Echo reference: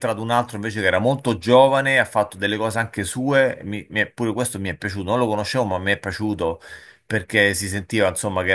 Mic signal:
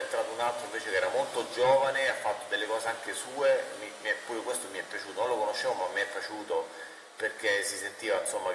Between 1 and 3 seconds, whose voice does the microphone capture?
echo only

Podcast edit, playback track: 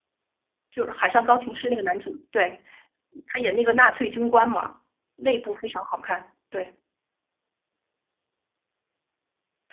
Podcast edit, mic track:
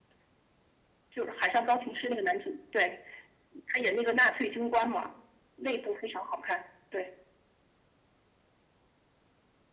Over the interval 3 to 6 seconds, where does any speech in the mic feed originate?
echo only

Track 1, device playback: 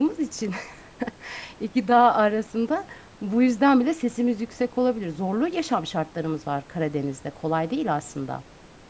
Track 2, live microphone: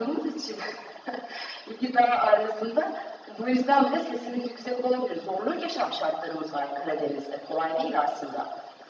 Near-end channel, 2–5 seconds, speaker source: echo only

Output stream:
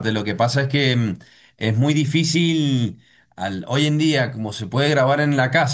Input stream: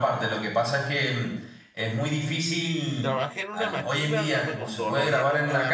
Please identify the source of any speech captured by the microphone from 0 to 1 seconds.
echo only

